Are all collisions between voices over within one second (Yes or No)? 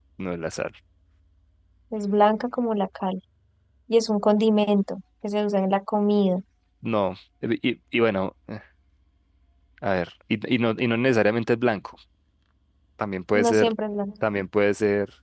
Yes